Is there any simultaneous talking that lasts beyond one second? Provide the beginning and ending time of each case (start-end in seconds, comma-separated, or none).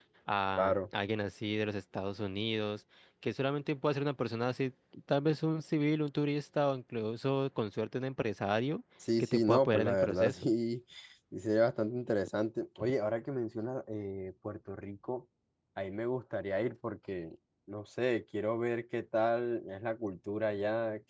9.2-10.5